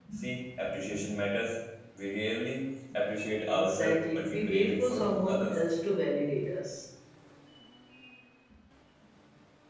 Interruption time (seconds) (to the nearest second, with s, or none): 3 s